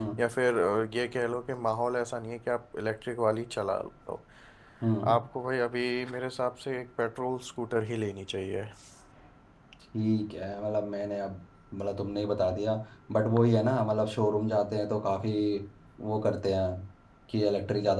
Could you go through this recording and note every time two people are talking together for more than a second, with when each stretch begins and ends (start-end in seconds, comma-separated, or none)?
none